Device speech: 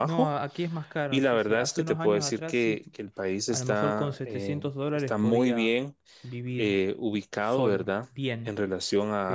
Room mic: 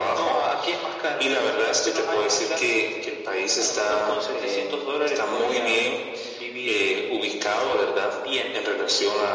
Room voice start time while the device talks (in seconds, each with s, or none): none